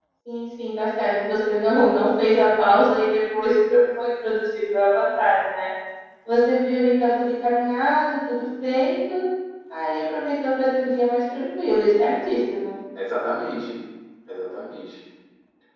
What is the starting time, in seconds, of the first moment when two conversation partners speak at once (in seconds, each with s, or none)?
none